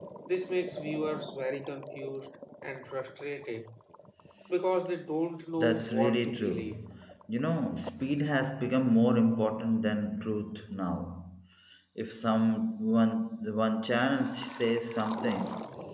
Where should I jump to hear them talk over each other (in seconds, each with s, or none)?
5.6 s